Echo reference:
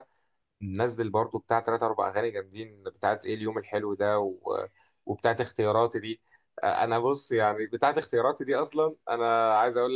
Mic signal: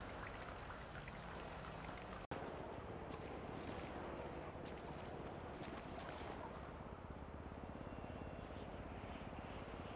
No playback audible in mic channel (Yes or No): Yes